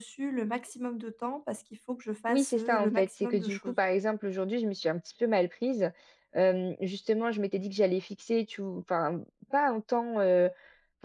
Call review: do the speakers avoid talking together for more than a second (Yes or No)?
No